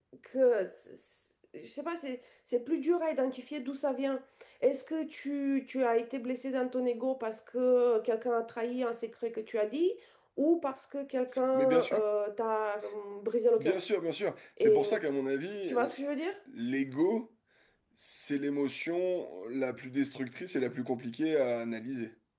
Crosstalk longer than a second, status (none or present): none